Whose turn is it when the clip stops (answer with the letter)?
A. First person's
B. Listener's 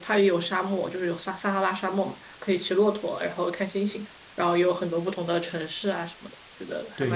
B